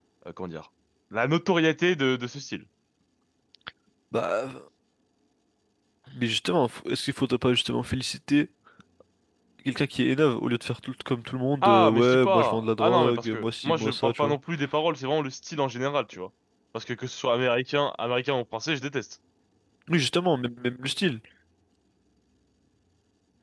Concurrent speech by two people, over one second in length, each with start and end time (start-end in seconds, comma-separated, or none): 11.6-14.4